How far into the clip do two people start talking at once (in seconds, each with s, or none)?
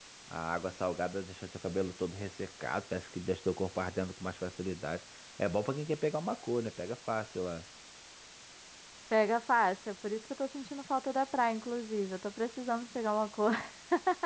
none